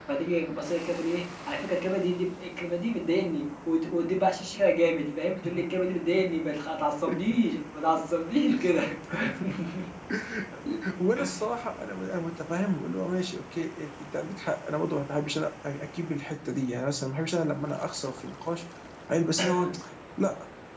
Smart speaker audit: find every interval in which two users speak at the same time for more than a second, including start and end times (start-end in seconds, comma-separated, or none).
none